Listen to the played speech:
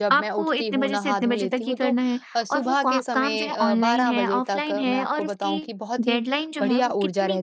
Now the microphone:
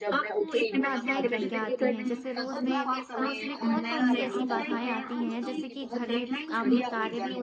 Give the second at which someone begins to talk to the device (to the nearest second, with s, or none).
1 s